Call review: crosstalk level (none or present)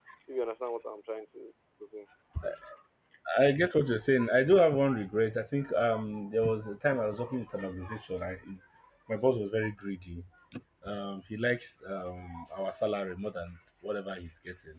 none